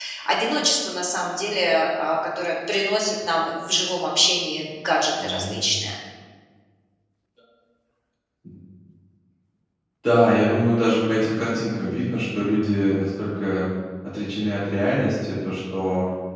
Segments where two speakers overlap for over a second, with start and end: none

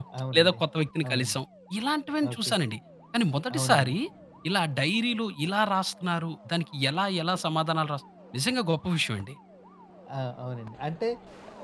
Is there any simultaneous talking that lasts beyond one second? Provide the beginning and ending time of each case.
none

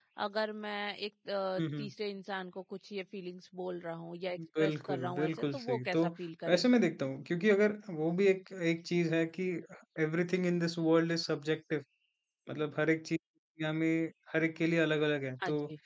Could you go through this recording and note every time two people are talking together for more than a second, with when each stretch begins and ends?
4.6-6.0

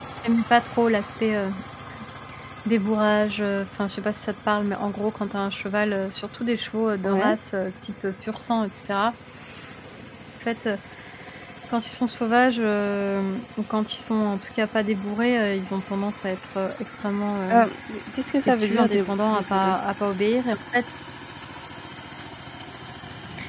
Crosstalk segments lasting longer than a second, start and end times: 18.5-19.7

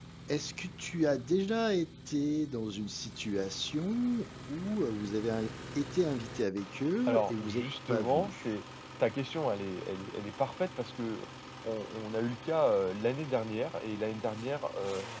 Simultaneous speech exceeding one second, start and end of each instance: 7.1-8.5

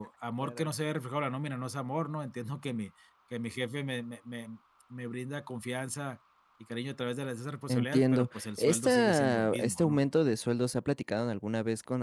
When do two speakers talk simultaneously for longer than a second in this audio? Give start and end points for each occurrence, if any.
7.7-10.0

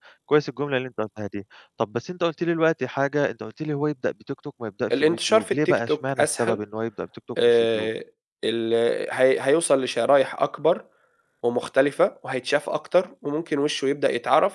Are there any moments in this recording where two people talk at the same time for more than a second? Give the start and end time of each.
4.9-6.6

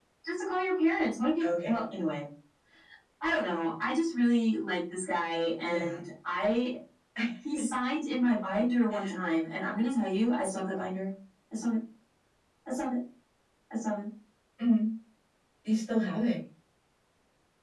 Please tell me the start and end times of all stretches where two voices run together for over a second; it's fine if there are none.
none

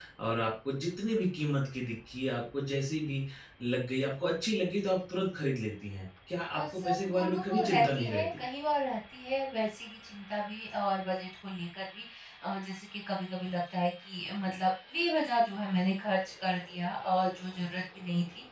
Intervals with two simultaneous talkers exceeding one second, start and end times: 6.6-8.4

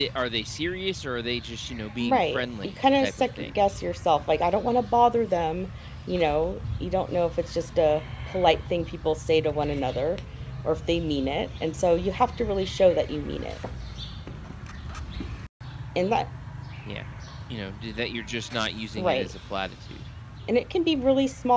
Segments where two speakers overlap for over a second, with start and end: 2.0-3.6

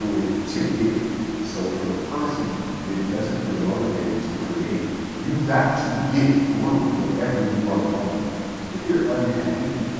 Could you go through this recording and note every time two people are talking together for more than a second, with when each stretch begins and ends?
none

